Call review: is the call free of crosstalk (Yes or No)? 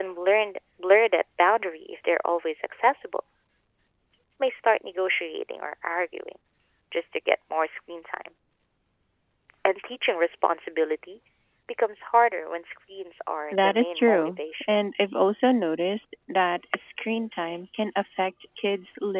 No